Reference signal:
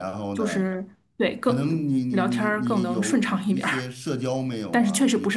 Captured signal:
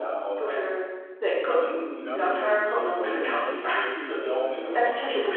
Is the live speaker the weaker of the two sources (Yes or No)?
Yes